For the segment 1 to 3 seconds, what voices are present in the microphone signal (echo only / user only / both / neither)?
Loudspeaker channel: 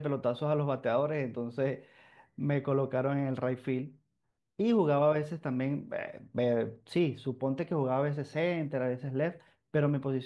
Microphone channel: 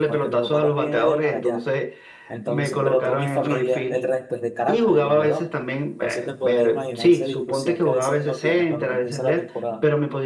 both